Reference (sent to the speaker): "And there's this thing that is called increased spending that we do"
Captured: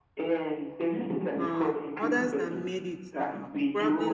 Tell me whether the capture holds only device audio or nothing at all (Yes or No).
No